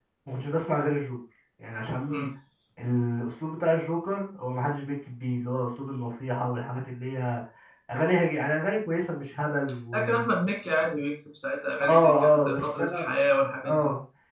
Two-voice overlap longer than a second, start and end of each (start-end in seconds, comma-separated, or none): 11.8-13.1